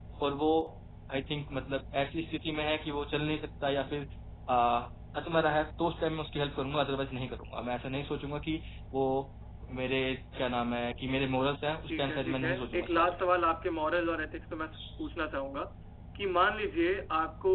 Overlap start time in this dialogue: 12 s

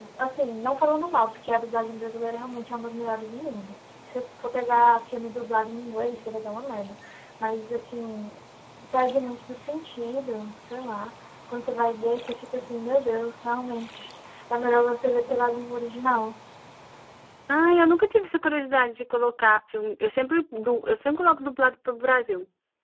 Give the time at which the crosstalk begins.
none

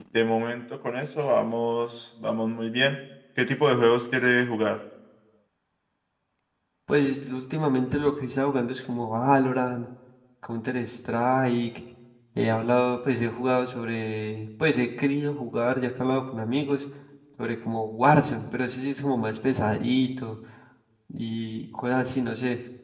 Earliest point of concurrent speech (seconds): none

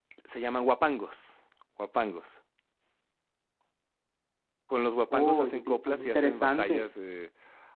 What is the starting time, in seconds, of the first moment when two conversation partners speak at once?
5 s

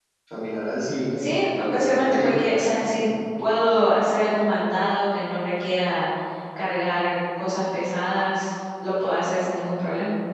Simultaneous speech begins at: 1 s

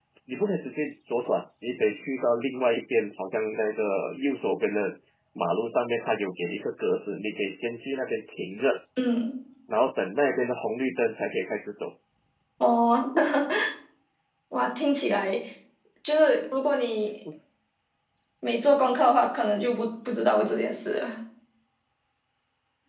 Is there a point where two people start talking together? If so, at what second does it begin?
none

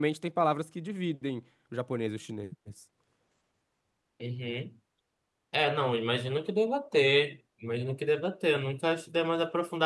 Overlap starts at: none

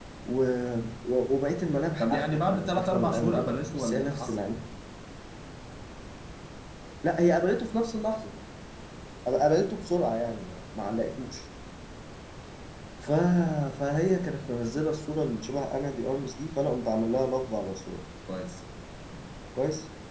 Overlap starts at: 2 s

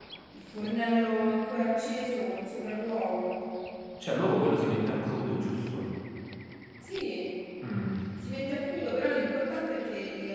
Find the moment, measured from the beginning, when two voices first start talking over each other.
none

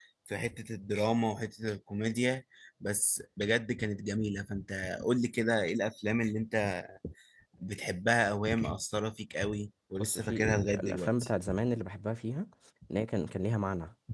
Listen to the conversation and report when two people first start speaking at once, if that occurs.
10 s

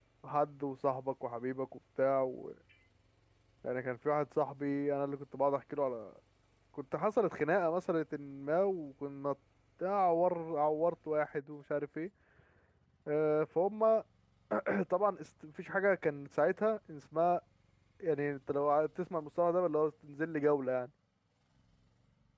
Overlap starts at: none

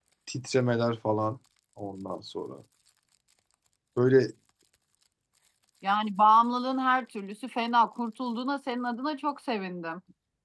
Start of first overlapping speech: none

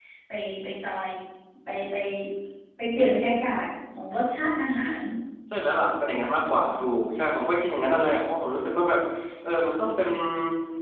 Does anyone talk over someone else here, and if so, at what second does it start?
none

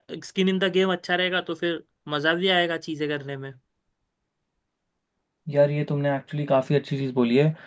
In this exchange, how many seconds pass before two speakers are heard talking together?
none

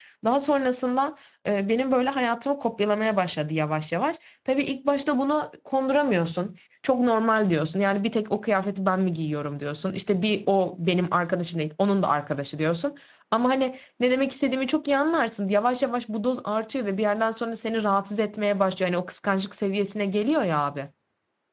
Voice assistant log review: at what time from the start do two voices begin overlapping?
none

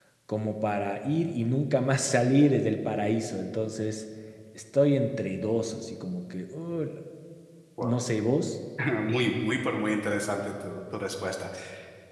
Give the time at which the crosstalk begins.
none

